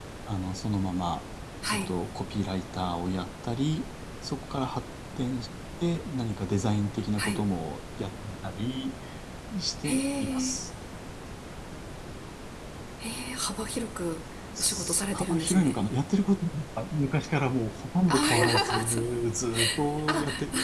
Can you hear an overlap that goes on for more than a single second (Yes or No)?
Yes